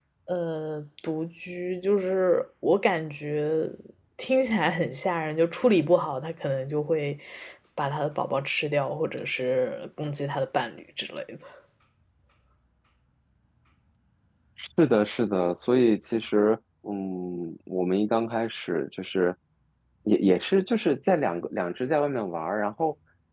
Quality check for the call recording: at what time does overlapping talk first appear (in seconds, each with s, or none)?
none